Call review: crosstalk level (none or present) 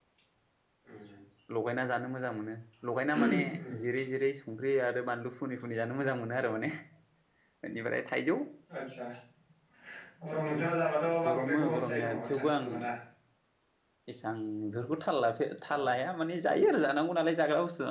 present